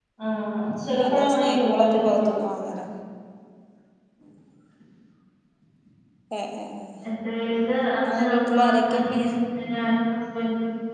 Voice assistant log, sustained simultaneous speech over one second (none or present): present